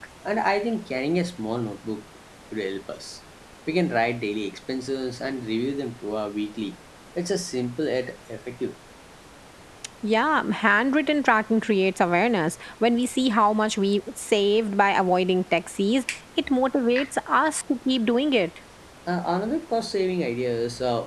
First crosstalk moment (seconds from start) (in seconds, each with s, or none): none